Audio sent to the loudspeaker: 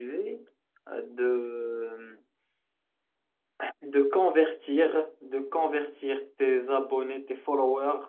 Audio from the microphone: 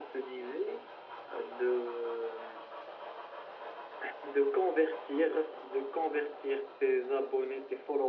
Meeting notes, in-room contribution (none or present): none